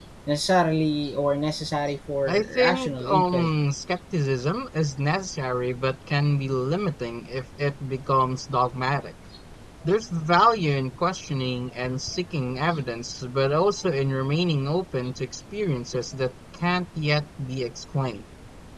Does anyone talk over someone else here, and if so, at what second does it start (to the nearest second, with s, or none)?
2 s